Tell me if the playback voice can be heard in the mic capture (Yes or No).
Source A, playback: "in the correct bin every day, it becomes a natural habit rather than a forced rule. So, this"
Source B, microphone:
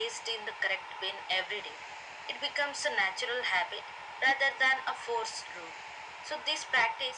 Yes